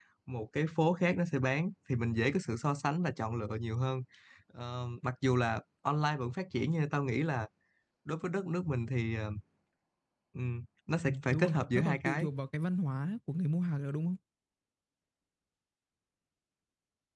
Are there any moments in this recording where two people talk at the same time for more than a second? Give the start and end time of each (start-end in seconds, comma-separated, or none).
11.0-12.3